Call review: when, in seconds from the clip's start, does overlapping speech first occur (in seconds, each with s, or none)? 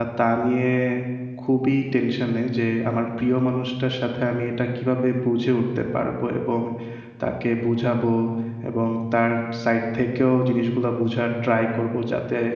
none